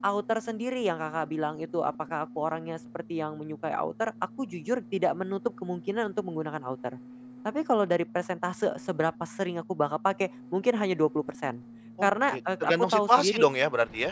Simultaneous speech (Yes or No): Yes